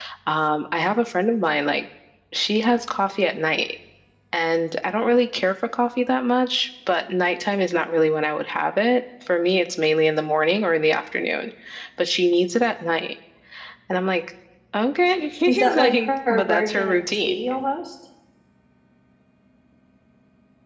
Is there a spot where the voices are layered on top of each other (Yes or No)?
Yes